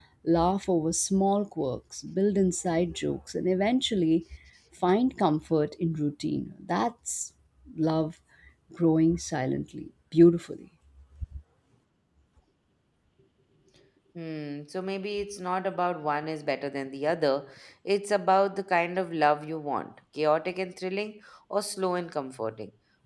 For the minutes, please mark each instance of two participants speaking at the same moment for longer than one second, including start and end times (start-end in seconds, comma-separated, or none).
none